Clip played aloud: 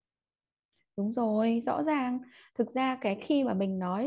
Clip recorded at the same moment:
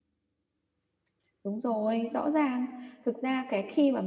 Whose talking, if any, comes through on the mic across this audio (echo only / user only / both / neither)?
echo only